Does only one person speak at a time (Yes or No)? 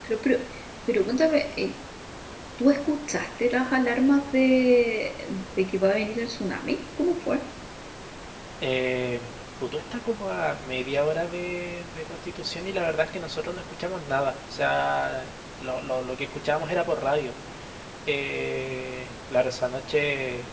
Yes